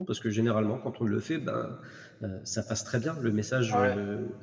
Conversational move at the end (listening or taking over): listening